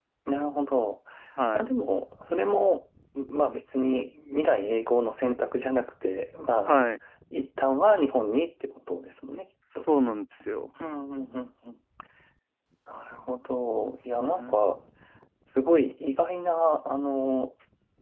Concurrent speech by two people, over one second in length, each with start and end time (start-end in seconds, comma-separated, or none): none